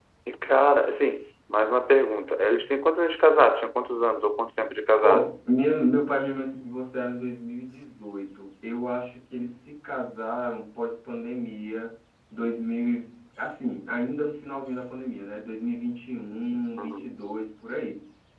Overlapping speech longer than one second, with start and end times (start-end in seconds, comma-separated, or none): none